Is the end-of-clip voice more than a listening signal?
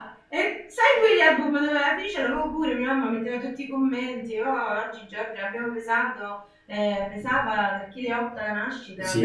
Yes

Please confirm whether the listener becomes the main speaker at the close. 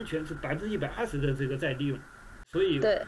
No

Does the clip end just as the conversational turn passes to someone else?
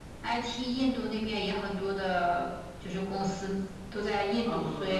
Yes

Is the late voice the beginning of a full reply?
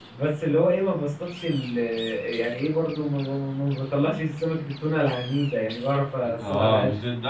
Yes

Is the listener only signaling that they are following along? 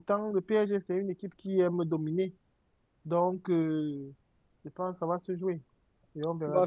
No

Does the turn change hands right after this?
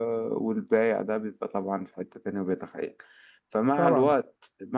No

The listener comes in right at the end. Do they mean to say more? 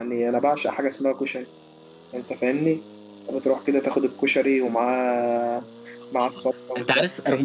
Yes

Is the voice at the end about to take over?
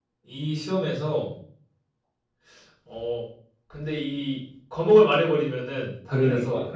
Yes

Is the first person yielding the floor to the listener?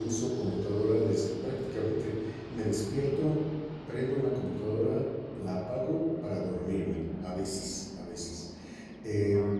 No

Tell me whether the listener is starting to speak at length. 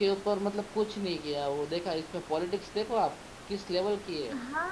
Yes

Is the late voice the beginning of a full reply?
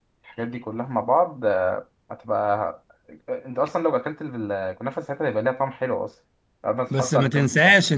Yes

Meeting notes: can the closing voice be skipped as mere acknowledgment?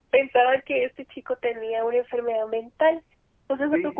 Yes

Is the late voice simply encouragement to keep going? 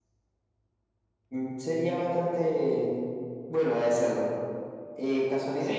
Yes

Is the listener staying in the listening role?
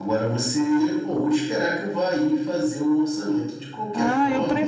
No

